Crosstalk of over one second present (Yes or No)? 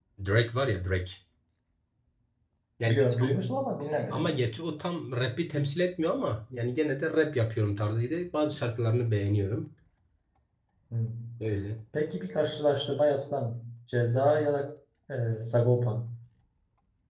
No